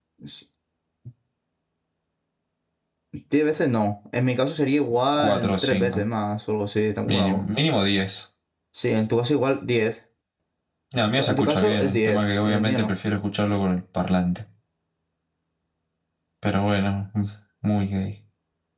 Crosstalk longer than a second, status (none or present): present